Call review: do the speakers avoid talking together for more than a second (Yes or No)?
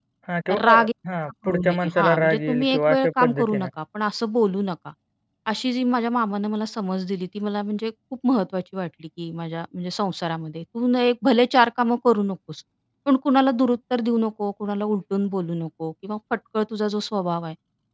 No